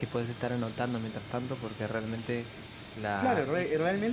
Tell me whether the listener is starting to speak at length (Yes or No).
Yes